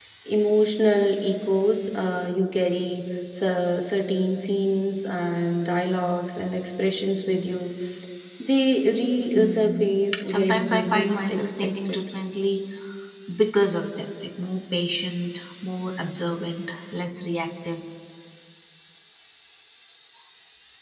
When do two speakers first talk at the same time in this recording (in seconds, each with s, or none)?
9.3 s